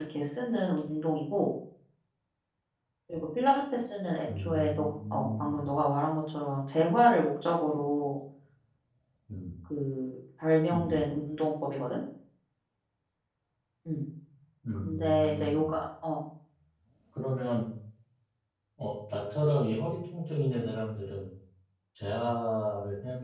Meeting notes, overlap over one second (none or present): present